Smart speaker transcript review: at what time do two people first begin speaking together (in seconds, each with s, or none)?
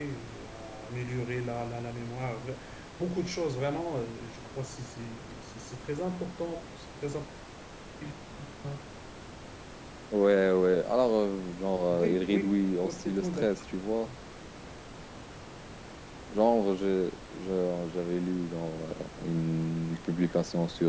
11.9 s